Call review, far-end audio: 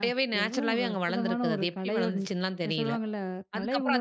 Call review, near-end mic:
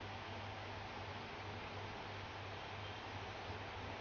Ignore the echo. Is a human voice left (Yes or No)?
No